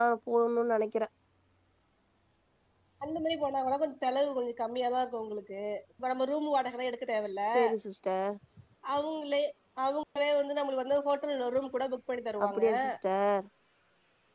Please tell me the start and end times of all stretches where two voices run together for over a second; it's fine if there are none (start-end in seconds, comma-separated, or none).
none